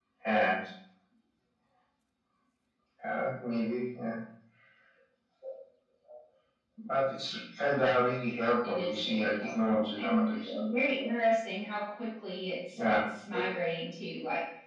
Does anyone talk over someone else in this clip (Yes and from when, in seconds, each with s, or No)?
Yes, from 8.6 s